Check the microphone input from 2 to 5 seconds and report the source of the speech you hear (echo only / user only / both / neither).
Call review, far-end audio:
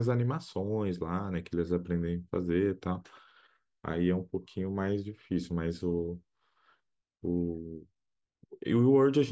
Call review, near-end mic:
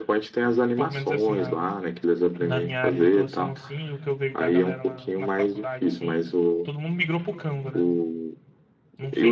both